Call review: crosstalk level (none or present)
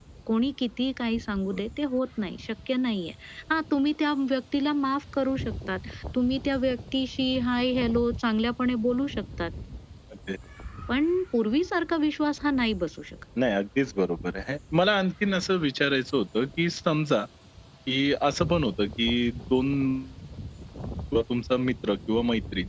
none